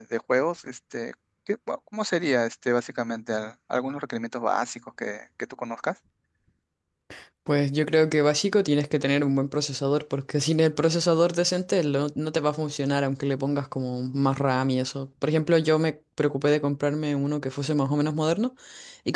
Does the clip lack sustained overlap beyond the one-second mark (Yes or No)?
Yes